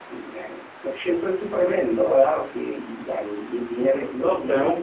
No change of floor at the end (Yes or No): No